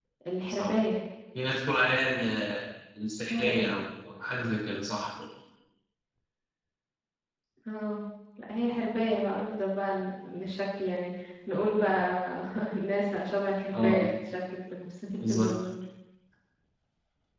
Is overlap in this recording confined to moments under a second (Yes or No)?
Yes